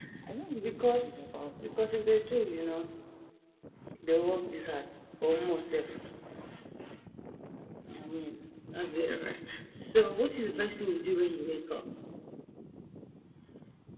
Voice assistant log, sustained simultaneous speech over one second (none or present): present